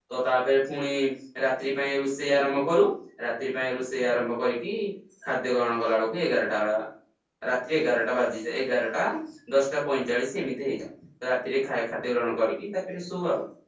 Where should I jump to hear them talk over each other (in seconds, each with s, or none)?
none